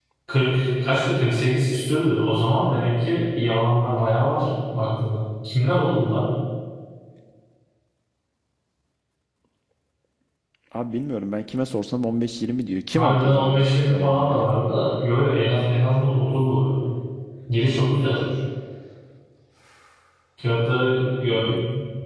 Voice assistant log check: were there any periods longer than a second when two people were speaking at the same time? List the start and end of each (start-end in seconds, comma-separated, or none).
12.9-14.4